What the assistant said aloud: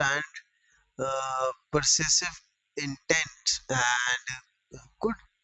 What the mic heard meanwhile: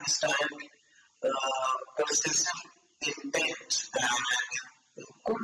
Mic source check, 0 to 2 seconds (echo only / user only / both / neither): echo only